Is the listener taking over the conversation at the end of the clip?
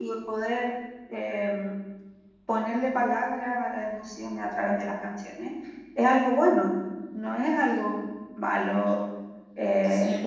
No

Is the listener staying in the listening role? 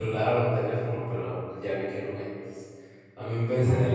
Yes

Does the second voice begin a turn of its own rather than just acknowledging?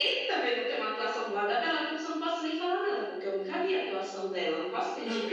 Yes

